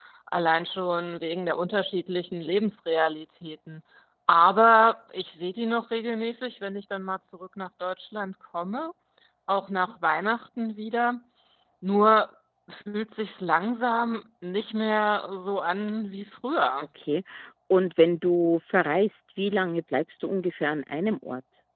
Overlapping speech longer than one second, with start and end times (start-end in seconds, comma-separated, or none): none